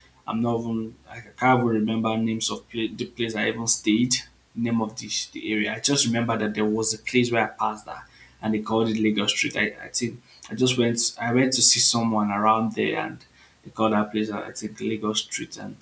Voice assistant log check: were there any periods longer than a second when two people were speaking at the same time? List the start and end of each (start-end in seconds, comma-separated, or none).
none